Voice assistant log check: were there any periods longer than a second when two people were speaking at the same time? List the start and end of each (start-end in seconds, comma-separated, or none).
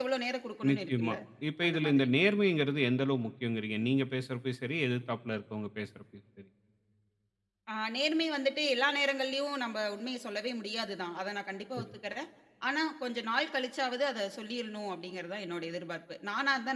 none